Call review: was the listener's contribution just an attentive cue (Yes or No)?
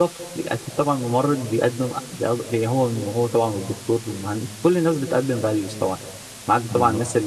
Yes